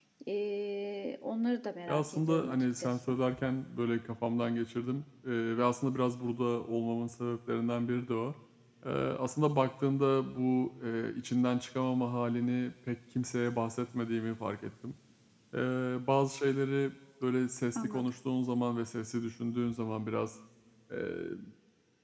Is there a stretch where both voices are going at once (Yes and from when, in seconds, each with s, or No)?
Yes, from 1.9 s